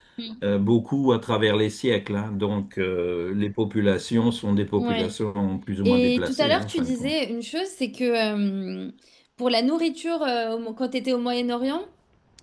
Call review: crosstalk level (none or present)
present